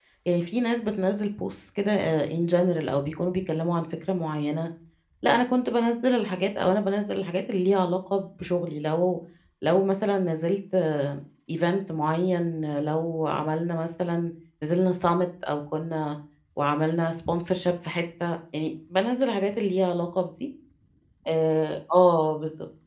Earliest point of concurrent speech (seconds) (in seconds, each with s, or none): none